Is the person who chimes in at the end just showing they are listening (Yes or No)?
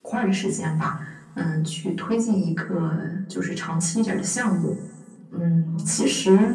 Yes